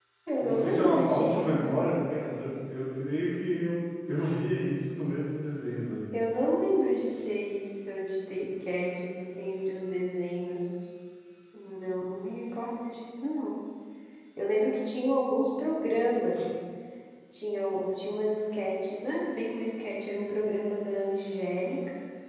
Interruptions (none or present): present